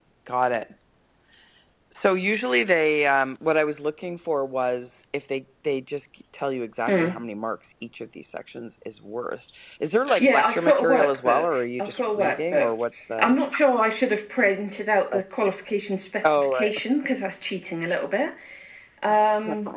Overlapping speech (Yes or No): Yes